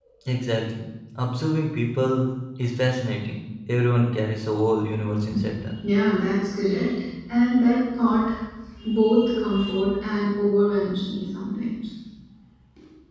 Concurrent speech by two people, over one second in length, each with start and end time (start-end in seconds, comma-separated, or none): none